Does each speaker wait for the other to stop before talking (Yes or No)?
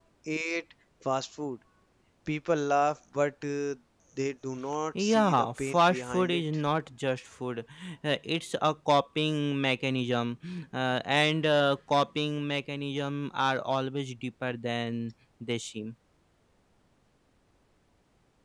No